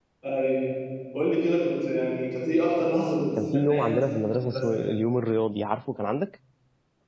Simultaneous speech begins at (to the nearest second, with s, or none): 3 s